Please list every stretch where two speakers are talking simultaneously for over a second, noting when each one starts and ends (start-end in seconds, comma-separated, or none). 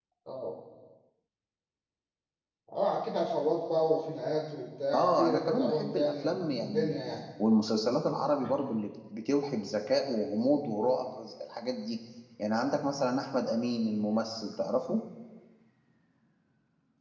4.9-6.9